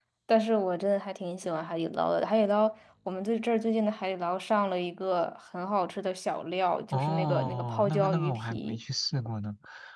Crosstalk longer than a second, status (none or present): present